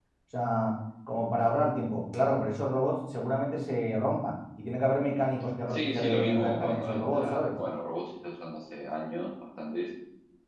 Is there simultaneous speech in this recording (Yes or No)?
Yes